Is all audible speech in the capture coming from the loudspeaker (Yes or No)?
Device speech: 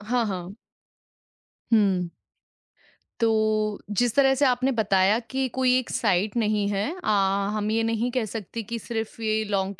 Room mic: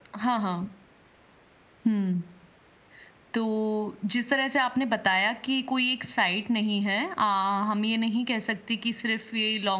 Yes